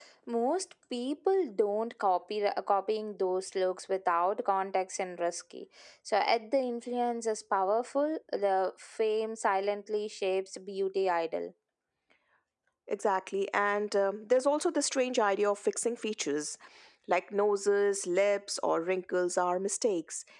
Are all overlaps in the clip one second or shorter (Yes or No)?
Yes